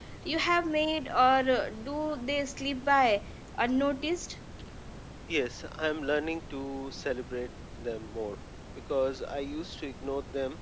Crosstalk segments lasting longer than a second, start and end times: none

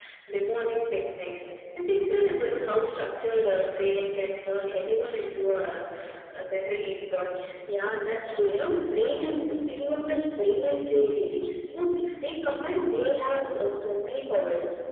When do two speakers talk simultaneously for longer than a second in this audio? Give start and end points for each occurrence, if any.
none

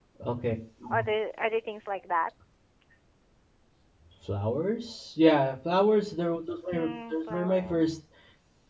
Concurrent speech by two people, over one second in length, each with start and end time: 6.7-7.9

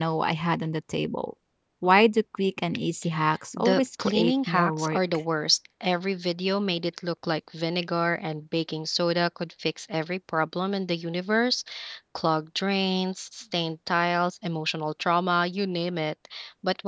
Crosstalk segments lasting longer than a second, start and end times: 3.5-5.0

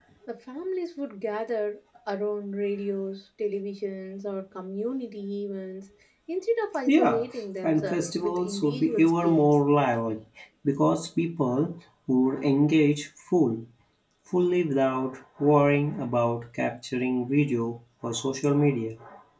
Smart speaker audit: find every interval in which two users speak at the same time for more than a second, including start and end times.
7.6-9.5

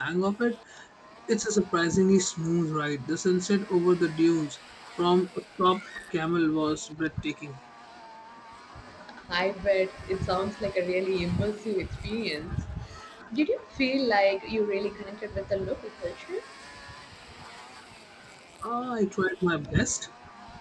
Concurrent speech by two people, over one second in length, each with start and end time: none

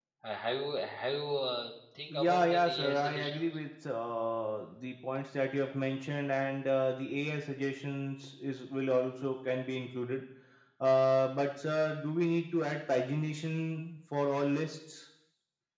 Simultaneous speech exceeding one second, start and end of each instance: 2.1-3.5

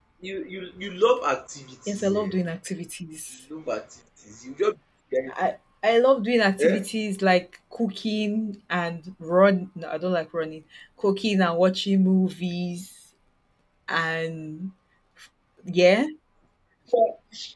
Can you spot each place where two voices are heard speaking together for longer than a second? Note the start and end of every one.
none

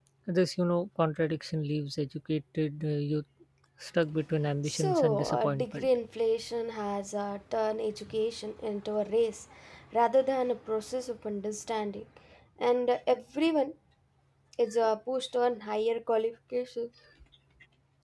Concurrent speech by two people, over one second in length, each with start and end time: 4.7-5.9

